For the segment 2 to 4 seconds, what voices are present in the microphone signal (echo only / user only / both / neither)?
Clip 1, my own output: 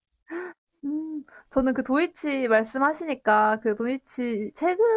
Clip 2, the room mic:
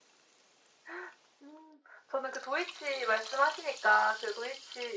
echo only